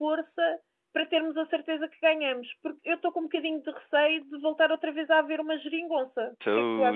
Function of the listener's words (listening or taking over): taking over